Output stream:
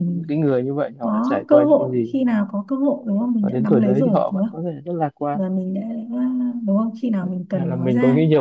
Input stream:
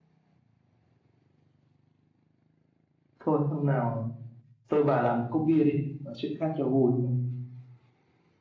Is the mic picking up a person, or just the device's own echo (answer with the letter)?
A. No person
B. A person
B